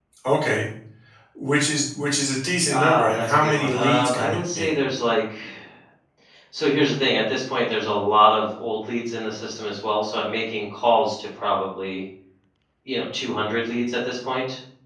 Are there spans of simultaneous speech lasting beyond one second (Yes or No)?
Yes